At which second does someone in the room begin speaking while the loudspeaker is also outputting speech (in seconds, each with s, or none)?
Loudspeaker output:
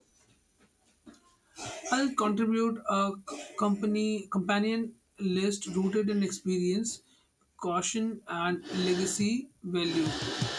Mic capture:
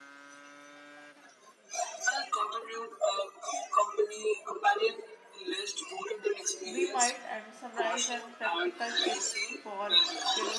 6.6 s